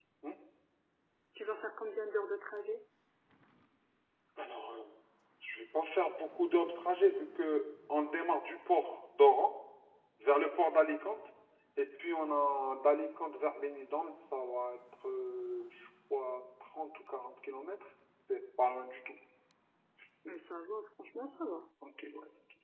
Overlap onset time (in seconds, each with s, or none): none